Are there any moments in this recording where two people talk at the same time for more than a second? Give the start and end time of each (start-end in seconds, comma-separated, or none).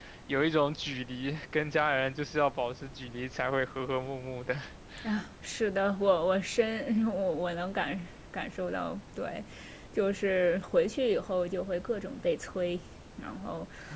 none